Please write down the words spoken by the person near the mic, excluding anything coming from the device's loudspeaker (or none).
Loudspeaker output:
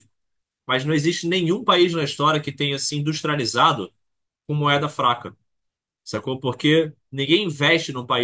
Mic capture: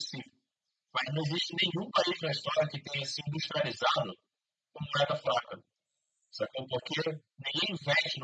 none